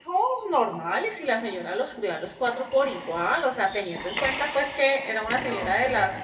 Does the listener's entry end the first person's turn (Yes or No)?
No